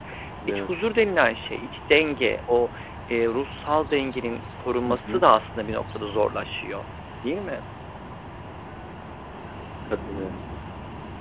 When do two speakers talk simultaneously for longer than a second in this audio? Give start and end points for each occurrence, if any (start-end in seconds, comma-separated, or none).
none